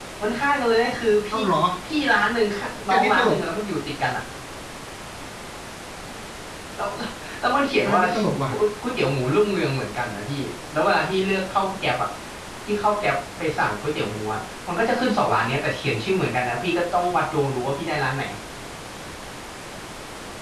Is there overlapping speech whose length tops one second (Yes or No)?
No